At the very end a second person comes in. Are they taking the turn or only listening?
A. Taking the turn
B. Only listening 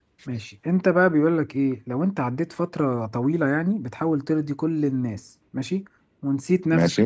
B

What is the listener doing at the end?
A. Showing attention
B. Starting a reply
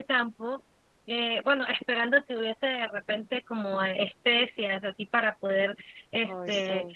A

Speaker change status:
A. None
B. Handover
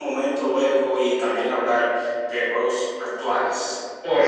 B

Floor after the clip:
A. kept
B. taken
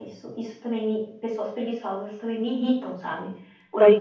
B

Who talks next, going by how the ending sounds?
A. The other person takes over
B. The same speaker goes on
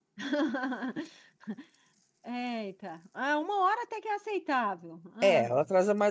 A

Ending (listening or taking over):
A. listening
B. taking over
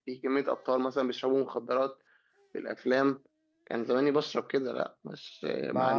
B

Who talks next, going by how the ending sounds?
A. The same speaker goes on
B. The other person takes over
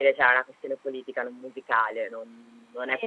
B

